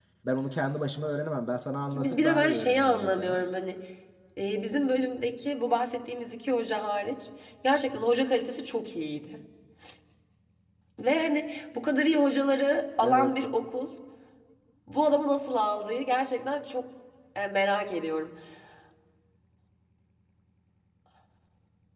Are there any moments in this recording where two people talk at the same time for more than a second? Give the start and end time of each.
1.9-3.4

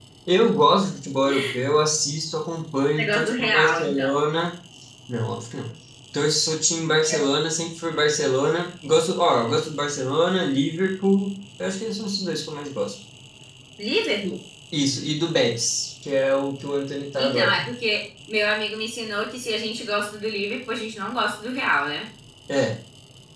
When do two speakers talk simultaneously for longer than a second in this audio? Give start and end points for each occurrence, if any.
3.0-4.2

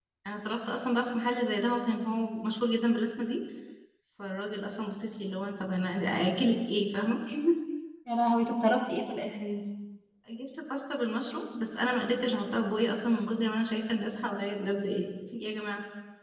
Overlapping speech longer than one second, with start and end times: none

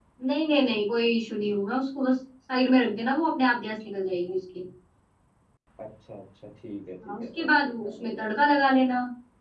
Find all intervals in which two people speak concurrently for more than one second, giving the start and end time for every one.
7.1-8.3

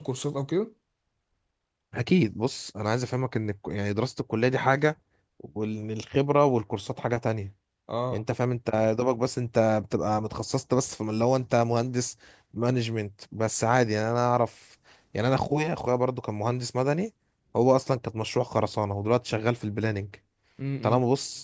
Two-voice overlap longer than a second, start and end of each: none

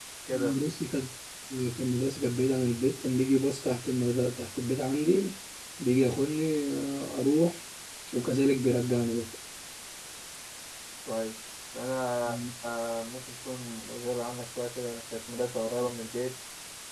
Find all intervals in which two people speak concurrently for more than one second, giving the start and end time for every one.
none

